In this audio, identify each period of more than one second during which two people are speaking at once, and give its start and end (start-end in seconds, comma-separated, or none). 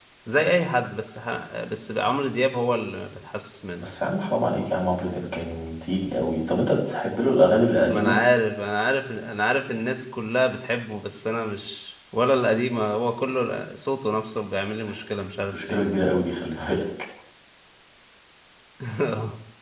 none